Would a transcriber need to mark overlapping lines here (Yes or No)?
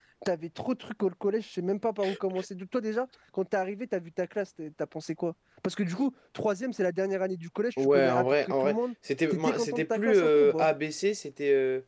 Yes